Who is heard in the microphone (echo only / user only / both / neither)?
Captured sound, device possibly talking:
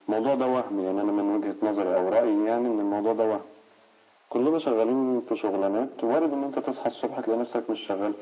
echo only